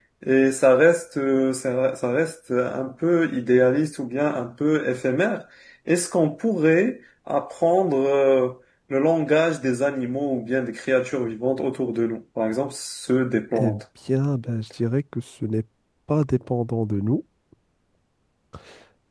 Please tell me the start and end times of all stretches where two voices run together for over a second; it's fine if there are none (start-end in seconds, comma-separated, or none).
none